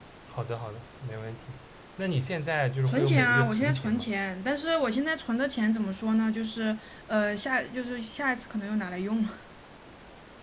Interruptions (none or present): present